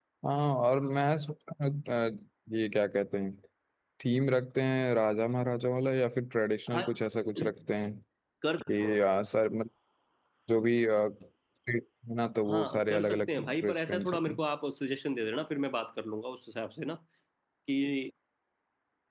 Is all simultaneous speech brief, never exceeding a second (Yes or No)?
No